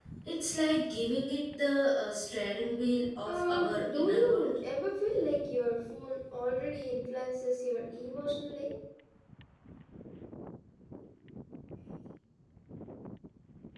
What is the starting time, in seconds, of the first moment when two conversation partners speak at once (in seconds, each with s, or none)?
3.3 s